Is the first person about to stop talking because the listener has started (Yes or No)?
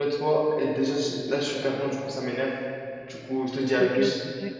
Yes